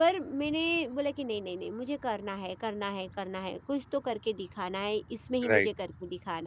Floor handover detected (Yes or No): No